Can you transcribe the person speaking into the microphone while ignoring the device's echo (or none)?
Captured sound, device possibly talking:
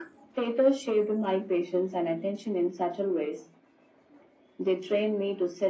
none